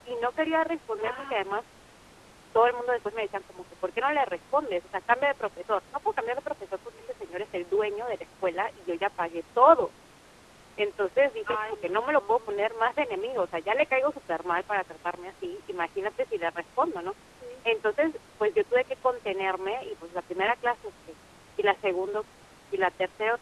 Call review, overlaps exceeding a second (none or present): present